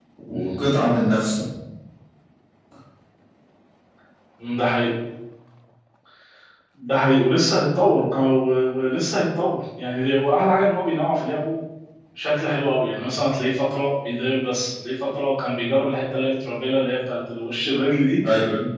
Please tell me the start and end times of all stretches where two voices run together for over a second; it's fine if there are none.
none

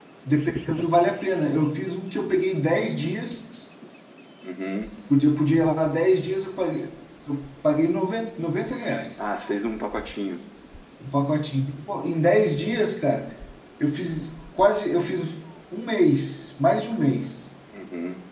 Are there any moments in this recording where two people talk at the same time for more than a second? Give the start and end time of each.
none

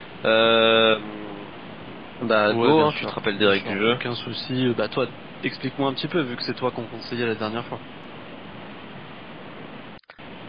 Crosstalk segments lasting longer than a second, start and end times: 2.5-4.0

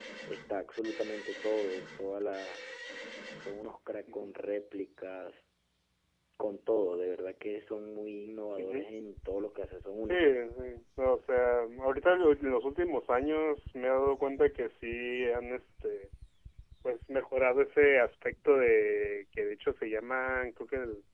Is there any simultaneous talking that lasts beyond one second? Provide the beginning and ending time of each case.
none

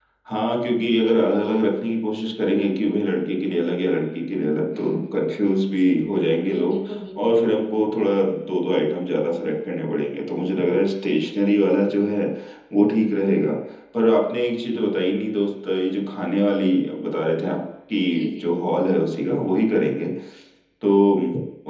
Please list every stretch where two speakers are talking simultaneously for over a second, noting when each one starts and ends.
none

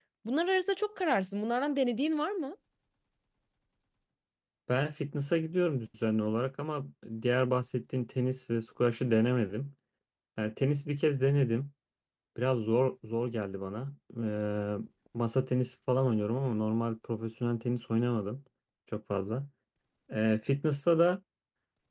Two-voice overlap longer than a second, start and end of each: none

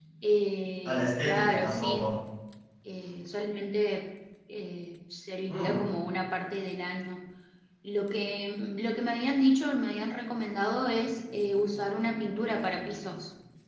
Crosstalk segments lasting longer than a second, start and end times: 0.8-2.1

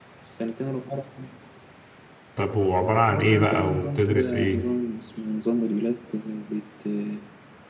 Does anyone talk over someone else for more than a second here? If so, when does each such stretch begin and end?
3.1-4.6

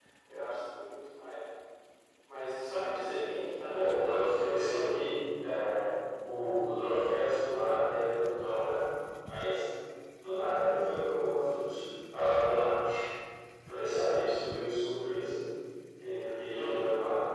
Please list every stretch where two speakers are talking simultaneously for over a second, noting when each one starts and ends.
3.7-5.0

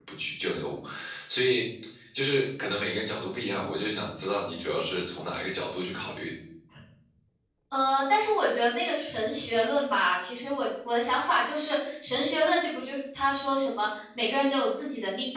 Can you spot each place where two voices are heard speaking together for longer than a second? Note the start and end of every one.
none

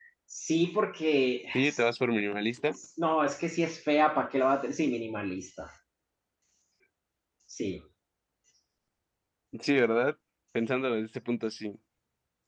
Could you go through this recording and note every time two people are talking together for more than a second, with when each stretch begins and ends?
none

